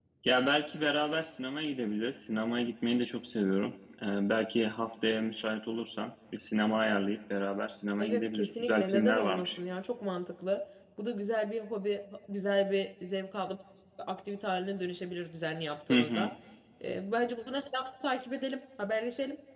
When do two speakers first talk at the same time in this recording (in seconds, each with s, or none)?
8.0 s